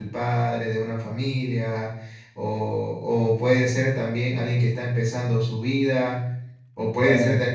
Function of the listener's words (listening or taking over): listening